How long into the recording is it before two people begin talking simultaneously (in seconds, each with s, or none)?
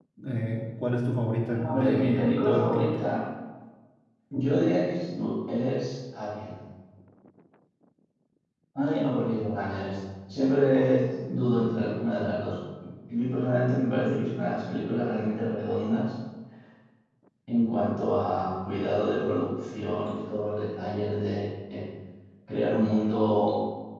1.5 s